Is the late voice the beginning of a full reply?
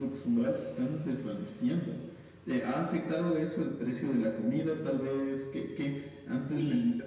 No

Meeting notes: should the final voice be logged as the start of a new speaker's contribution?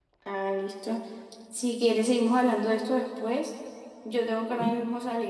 No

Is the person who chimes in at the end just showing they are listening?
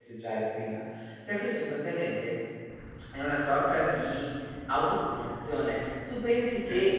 Yes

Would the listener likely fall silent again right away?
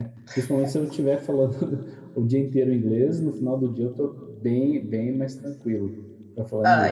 No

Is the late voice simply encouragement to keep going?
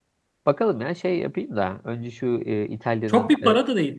No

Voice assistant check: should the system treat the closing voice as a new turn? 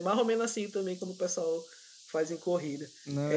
No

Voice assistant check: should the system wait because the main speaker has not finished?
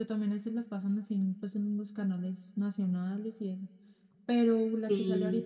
Yes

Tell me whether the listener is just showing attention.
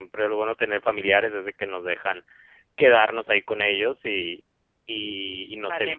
Yes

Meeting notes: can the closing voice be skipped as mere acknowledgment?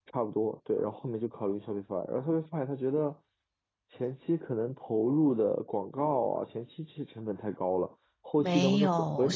No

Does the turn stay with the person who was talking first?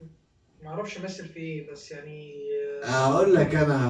No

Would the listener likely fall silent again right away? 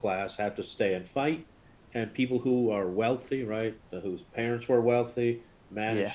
Yes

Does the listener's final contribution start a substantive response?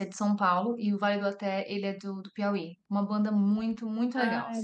Yes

